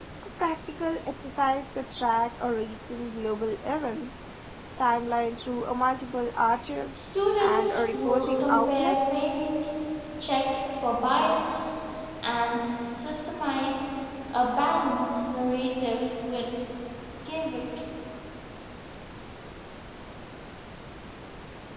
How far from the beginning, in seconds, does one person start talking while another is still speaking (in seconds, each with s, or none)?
7.4 s